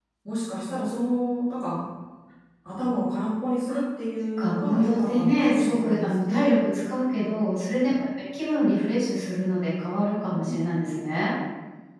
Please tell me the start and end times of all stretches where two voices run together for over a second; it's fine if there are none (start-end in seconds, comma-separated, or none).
4.4-6.5